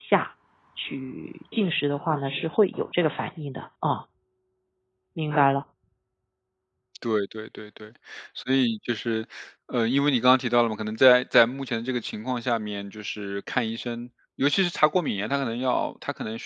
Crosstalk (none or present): none